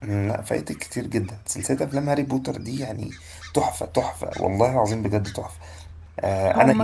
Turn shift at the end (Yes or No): Yes